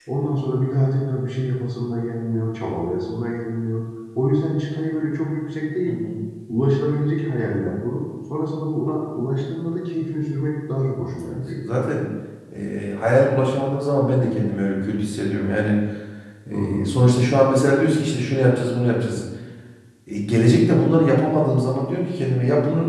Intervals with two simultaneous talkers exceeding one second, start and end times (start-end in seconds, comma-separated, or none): none